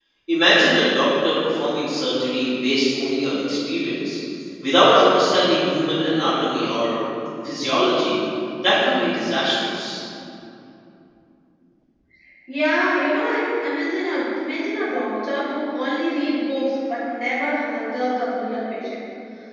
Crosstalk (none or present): none